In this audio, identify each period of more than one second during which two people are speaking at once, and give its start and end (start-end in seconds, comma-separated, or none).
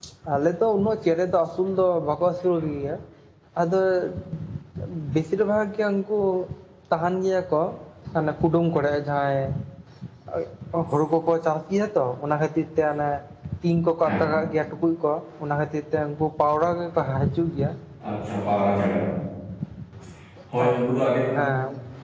none